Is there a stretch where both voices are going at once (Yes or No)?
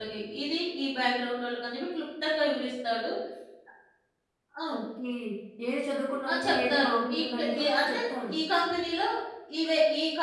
Yes